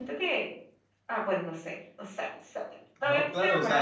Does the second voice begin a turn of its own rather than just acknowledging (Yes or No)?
Yes